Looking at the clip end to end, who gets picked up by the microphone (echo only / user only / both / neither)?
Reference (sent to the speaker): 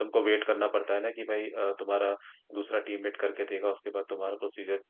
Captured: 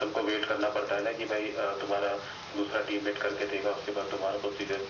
echo only